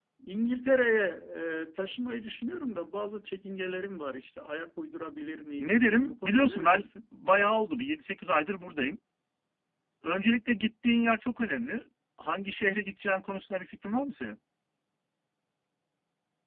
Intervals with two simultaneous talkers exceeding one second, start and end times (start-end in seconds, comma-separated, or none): 5.6-6.9